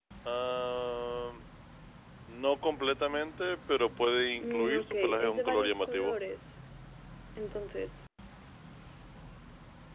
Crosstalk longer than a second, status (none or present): present